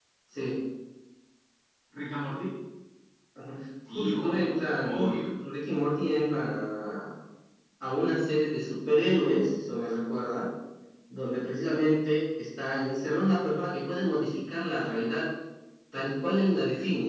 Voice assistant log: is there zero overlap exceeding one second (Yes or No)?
No